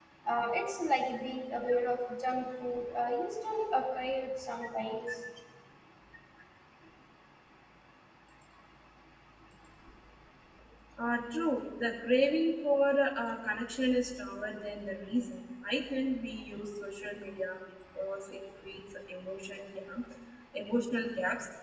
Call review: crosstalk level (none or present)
none